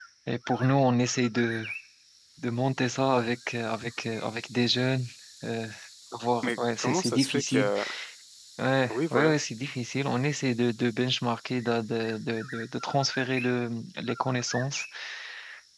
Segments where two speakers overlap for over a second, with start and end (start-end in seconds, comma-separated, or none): 6.4-7.7